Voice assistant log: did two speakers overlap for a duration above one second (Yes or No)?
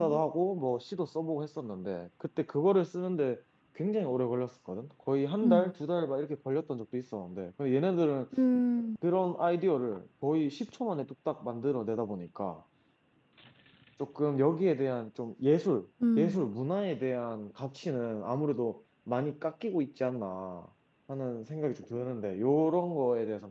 No